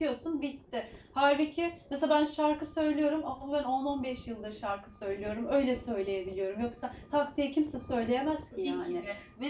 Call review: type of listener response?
taking over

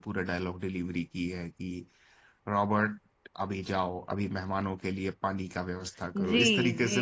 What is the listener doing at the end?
taking over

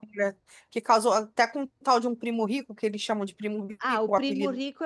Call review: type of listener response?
taking over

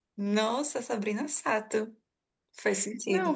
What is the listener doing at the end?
taking over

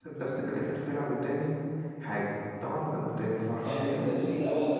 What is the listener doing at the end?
taking over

